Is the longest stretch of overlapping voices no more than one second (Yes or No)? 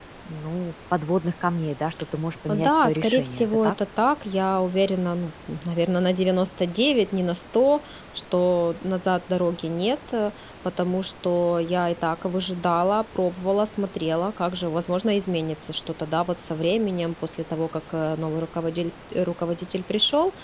No